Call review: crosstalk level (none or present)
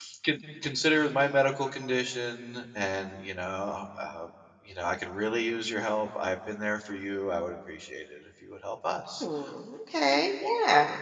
none